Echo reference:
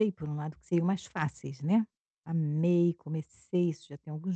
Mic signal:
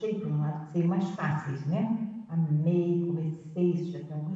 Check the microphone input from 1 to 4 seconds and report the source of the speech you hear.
echo only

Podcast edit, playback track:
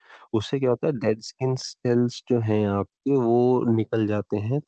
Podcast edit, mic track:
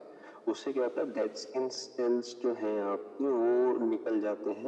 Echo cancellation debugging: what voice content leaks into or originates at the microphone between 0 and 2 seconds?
echo only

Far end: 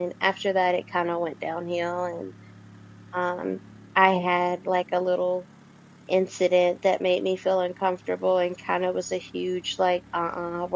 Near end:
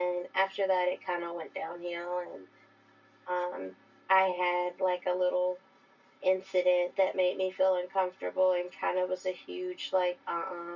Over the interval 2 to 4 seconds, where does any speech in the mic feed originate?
echo only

